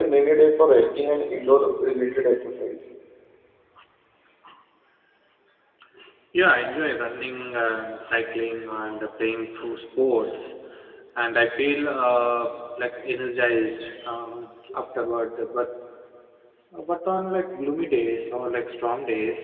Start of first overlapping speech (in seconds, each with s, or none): none